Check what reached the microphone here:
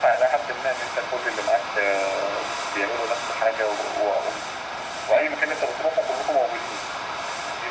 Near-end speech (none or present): none